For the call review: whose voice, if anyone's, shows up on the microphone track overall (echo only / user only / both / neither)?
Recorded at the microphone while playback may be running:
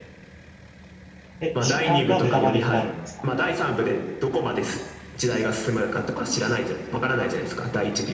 both